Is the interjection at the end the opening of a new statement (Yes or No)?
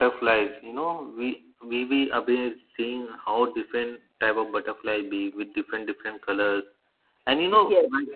No